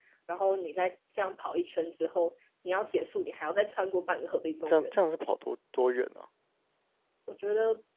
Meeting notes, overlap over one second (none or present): none